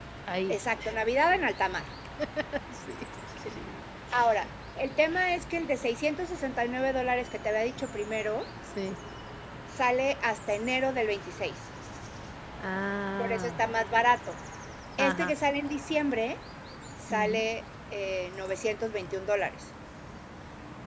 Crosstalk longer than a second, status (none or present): none